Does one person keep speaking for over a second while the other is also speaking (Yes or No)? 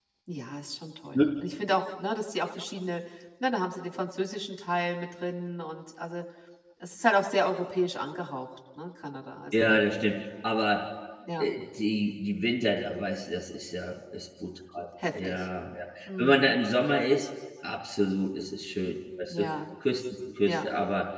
No